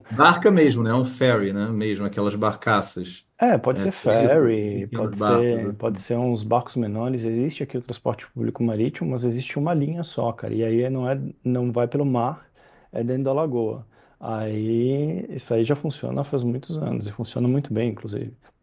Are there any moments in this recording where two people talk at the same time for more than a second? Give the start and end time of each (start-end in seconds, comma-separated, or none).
3.7-6.0